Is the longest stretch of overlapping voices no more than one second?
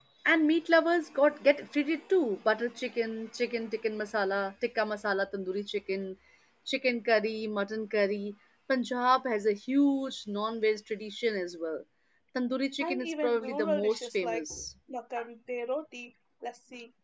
No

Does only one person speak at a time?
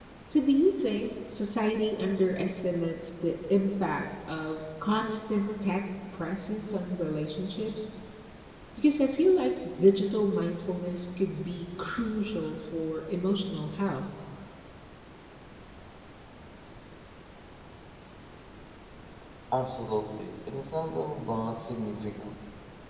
Yes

